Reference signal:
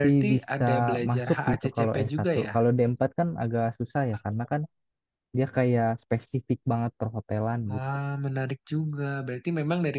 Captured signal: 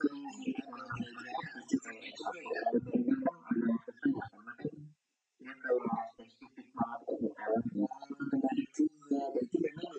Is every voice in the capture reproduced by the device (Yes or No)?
Yes